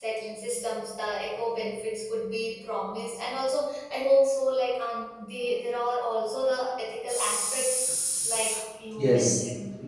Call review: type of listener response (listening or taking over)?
taking over